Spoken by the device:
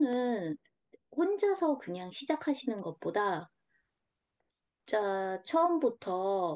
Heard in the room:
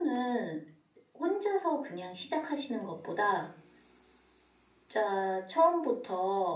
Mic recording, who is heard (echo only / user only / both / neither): echo only